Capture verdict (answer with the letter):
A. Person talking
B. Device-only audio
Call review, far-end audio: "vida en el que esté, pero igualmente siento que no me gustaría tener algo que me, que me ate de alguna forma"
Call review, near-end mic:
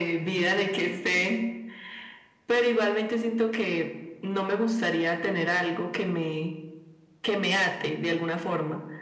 B